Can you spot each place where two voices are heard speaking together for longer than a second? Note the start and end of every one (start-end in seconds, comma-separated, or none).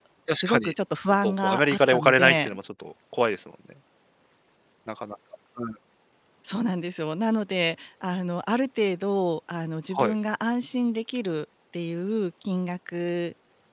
1.2-2.5